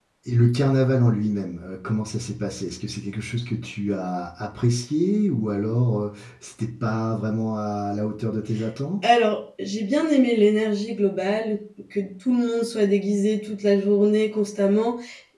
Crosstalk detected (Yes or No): No